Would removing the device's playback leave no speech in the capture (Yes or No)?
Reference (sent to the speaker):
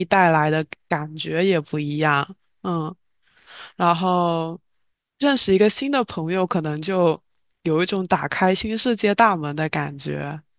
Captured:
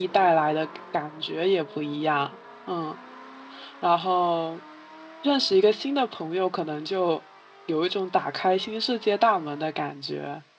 Yes